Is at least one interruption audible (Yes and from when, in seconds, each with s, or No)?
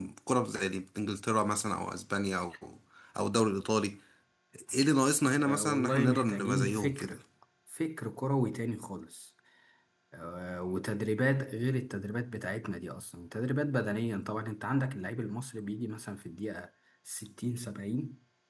Yes, from 5.4 s